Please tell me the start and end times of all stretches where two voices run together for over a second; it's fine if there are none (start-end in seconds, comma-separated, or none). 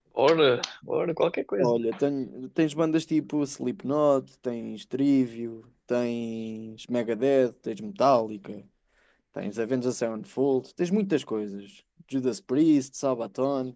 none